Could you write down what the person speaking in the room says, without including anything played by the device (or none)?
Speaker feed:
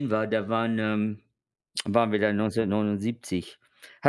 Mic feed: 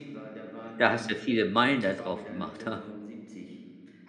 da hast du viele Meilen da drauf gemacht, ha?